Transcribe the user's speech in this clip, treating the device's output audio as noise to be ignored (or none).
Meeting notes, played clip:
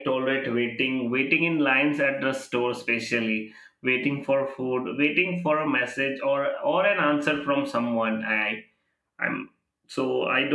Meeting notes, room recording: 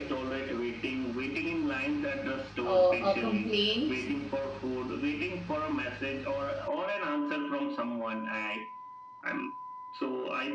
uh, a complaint